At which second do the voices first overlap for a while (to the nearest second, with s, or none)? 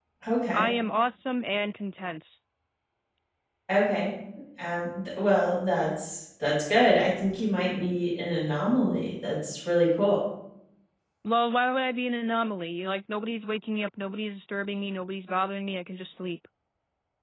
none